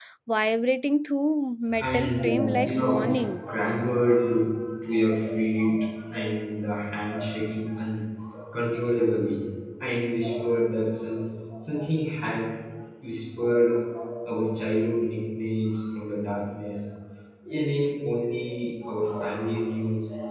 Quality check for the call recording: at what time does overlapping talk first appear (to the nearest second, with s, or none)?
2 s